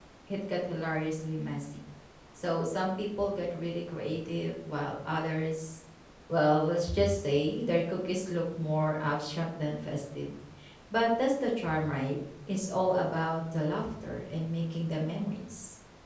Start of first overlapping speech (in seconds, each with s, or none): none